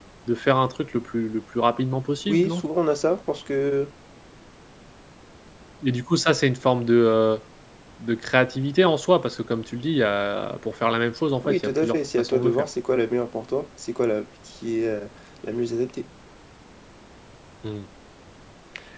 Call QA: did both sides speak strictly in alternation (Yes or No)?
No